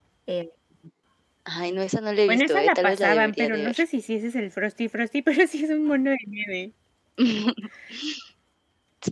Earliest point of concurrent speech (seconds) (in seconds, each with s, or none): 2.3 s